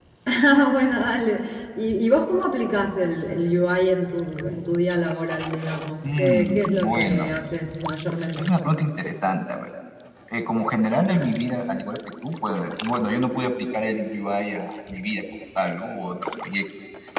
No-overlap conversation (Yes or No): No